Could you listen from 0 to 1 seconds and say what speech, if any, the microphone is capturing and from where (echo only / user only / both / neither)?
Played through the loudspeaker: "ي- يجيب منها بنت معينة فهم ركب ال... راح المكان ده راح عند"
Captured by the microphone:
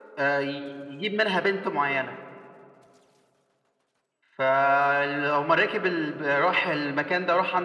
echo only